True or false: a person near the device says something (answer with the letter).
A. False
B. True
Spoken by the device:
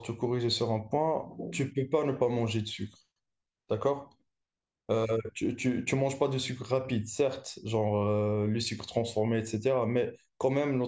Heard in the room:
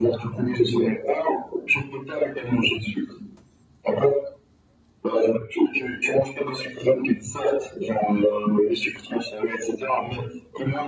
A